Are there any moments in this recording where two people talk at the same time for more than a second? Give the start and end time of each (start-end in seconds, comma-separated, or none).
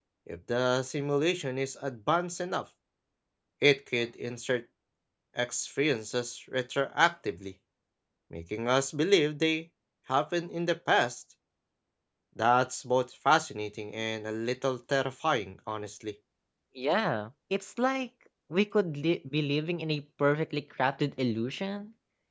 none